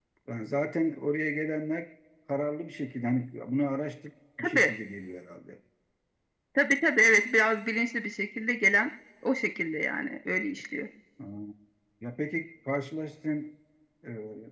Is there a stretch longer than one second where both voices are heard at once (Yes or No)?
No